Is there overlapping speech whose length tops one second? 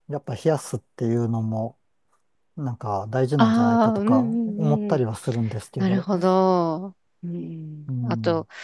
Yes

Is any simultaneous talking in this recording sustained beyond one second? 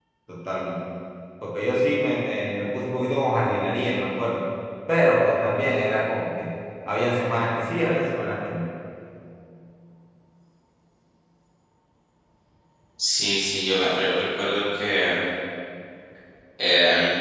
No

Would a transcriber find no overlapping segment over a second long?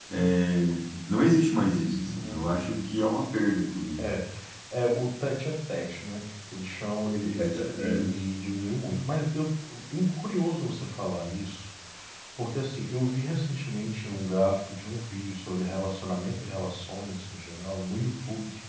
Yes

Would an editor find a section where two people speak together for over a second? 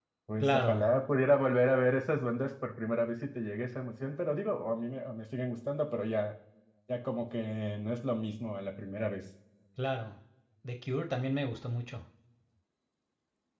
No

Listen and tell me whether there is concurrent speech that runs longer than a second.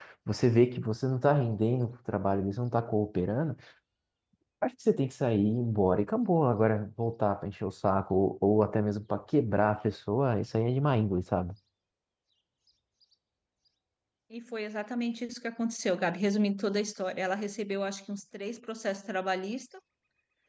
No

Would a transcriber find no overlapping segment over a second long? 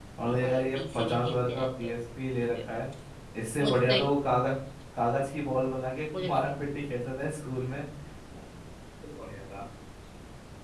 No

